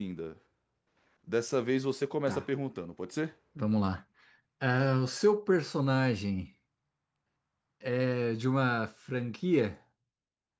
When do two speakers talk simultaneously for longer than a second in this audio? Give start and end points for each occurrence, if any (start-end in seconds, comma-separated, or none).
none